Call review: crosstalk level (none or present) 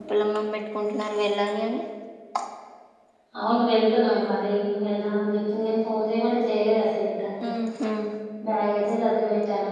none